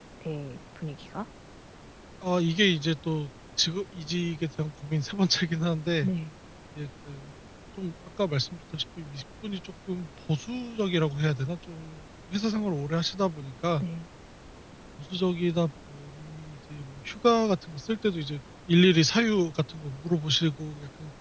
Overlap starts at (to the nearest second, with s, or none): none